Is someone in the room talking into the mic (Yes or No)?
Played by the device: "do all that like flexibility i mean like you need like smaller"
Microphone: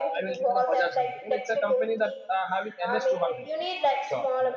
Yes